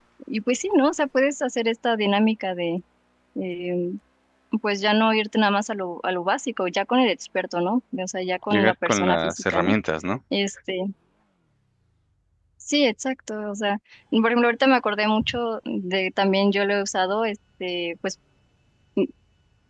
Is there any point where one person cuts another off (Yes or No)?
Yes